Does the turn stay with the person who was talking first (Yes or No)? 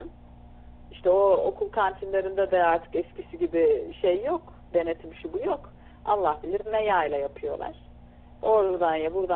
Yes